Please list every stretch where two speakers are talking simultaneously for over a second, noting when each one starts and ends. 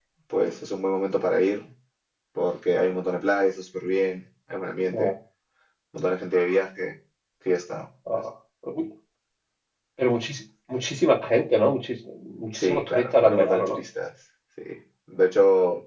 12.5-13.8

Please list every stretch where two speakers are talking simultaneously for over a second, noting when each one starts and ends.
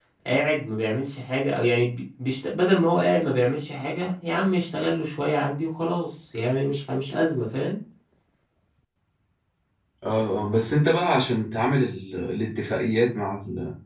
none

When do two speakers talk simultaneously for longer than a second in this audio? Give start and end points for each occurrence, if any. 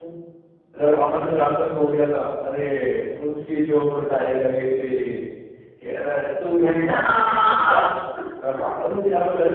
6.7-7.9

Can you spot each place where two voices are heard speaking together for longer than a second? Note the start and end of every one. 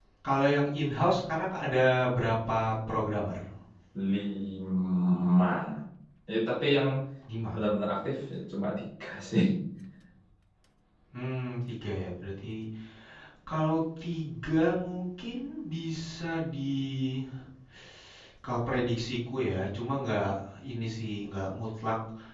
none

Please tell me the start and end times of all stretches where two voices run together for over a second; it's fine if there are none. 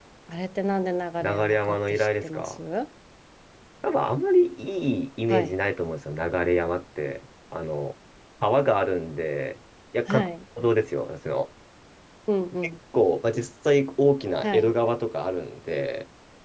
1.2-2.6

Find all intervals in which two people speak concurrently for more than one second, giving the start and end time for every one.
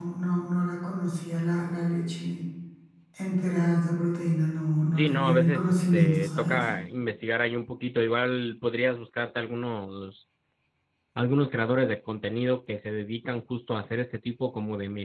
4.9-6.6

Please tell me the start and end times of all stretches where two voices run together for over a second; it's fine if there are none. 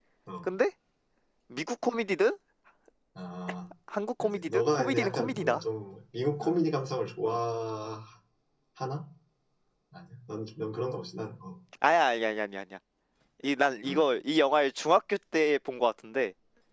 4.2-5.6

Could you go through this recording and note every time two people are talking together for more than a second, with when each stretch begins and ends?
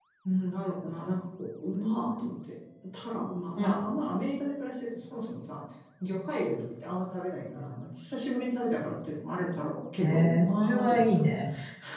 10.0-11.2

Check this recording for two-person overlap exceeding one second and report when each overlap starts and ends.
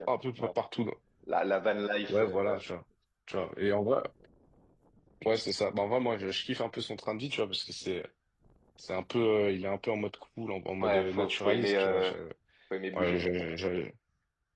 10.8-12.1

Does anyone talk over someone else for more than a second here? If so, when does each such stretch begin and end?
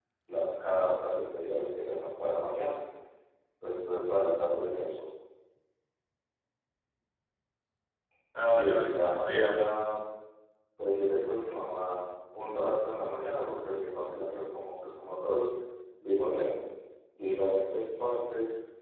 8.4-9.7

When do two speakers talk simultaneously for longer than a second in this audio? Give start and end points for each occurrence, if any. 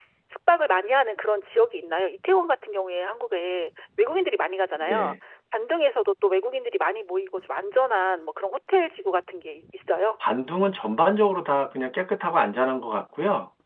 none

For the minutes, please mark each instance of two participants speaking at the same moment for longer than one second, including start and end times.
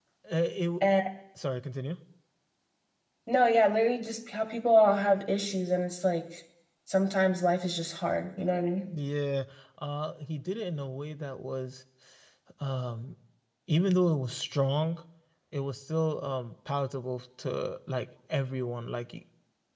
none

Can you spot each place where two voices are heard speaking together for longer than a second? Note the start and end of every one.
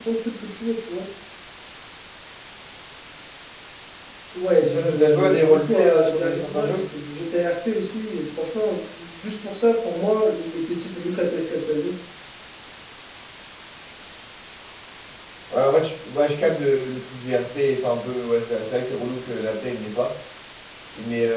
4.6-6.8

